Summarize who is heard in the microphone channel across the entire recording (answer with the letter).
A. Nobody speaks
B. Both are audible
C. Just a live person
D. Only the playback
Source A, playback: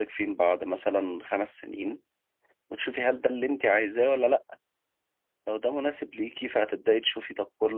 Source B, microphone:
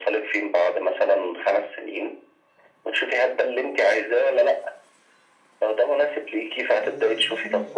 B